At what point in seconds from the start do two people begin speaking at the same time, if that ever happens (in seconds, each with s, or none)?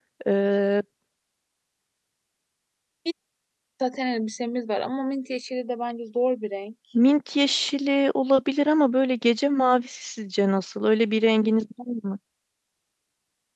none